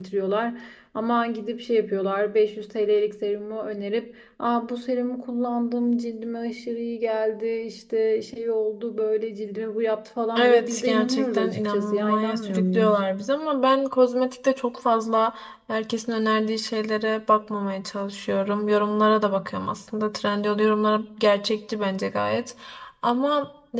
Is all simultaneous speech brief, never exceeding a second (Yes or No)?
No